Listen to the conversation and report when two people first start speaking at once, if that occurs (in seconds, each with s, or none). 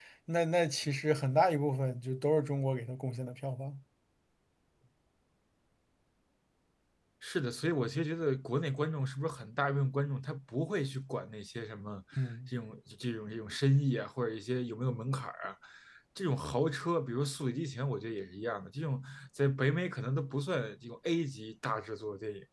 none